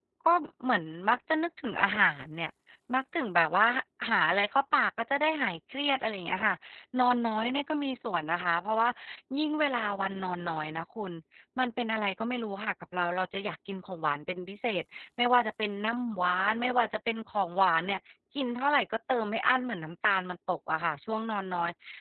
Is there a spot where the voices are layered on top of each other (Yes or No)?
No